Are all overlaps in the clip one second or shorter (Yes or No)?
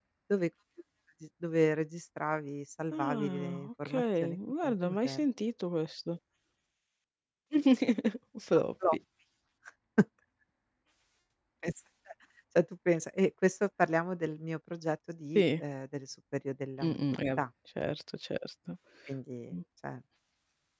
No